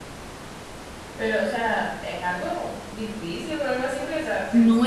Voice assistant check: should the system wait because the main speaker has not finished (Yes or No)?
No